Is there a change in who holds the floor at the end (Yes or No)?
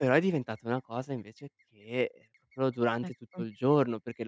No